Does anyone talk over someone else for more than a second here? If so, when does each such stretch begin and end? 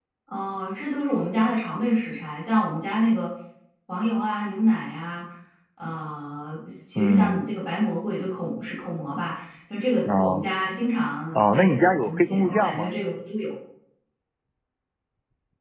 11.4-12.9

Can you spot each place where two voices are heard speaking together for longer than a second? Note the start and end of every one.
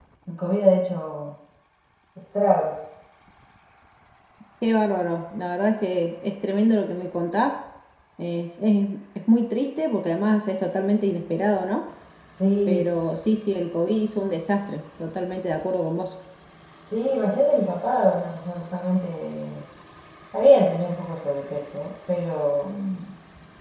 none

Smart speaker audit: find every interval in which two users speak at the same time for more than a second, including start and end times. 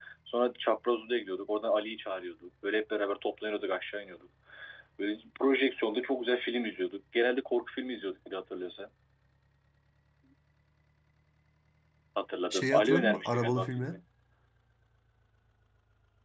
12.5-14.0

